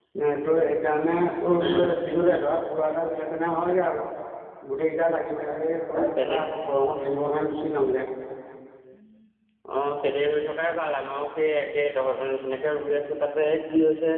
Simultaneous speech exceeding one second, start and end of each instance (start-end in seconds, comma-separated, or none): none